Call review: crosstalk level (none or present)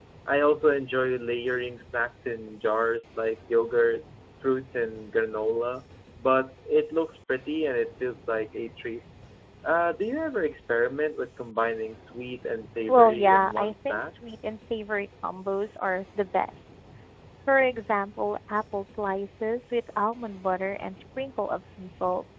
present